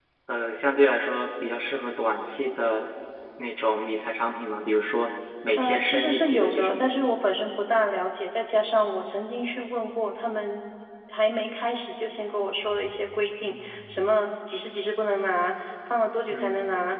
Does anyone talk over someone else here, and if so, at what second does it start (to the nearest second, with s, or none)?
6 s